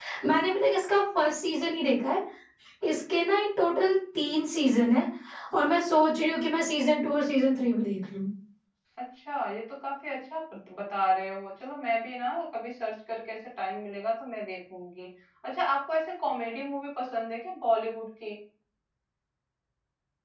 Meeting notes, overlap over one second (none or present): none